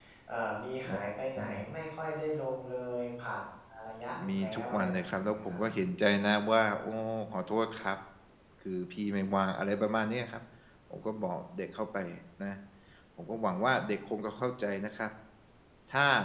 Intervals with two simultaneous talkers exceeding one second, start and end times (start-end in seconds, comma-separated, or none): 4.3-5.6